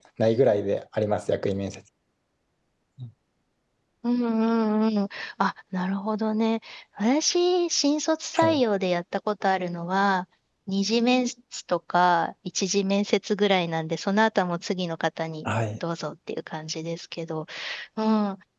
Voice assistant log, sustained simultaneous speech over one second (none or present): none